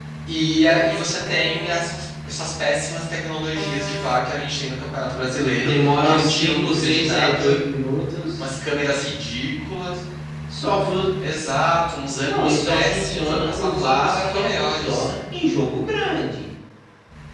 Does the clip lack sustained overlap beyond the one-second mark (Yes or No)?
No